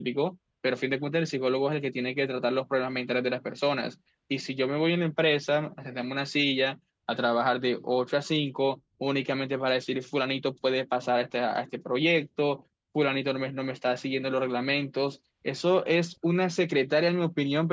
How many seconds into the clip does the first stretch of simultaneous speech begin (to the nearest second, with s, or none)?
none